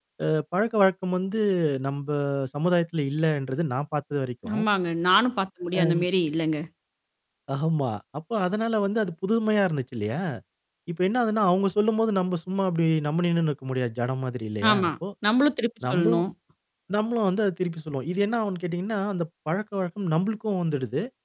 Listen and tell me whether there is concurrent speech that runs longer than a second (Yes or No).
No